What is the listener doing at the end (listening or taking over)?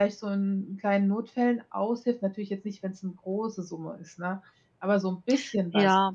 taking over